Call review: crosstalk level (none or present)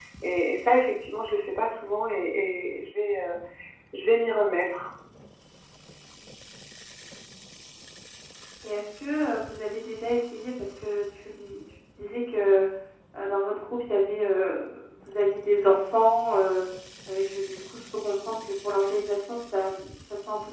none